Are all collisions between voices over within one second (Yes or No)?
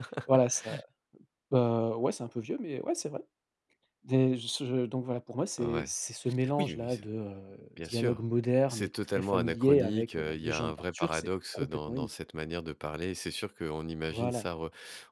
No